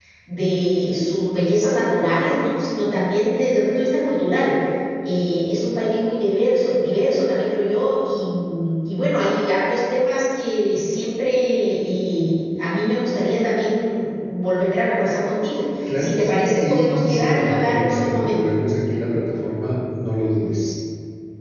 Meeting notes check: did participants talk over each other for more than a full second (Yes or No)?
Yes